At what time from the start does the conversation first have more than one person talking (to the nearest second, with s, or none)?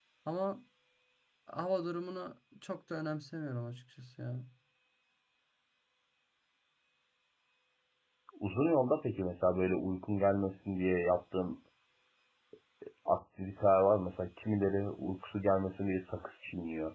none